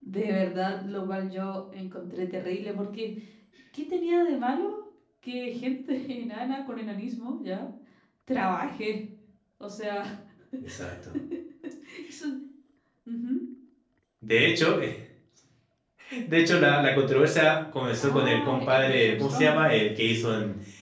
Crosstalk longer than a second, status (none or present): present